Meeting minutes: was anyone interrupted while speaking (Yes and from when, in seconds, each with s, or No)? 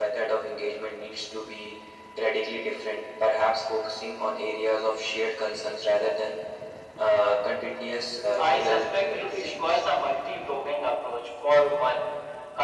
Yes, from 8.3 s